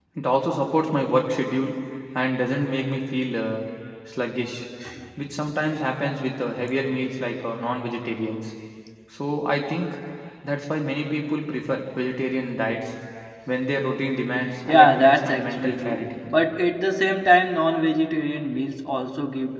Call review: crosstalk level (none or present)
present